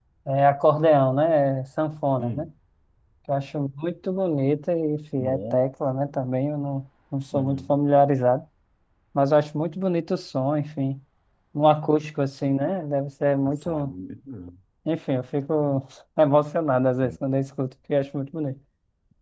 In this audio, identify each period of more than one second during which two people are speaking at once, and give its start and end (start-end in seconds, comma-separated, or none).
none